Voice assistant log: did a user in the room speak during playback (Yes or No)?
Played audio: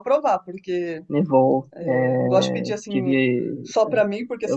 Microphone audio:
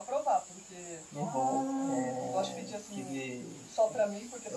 Yes